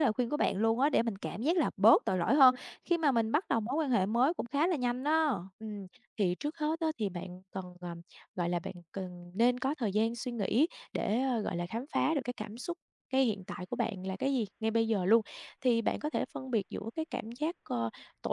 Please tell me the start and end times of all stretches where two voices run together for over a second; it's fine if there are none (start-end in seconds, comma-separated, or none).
none